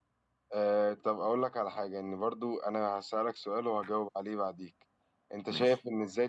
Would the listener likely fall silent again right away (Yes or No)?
Yes